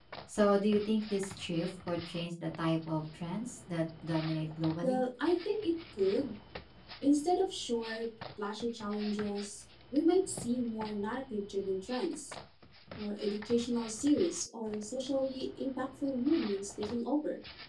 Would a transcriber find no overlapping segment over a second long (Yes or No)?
Yes